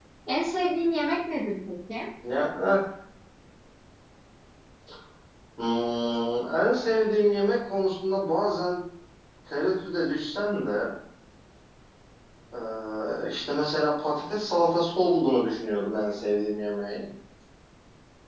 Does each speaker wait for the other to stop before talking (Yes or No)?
Yes